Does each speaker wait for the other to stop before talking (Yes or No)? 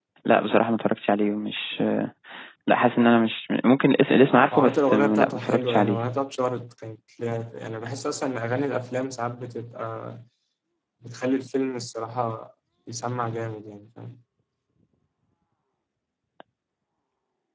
No